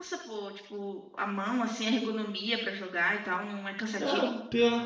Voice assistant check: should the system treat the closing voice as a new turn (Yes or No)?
Yes